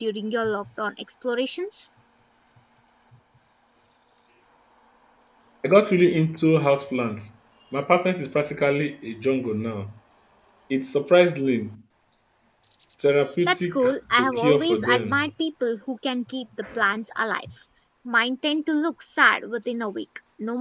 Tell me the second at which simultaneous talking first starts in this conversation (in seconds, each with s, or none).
13.5 s